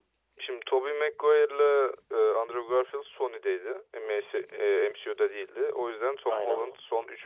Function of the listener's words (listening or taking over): listening